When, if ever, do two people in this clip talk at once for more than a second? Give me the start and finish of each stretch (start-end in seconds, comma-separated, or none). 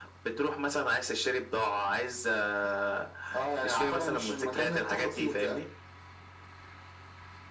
3.6-5.6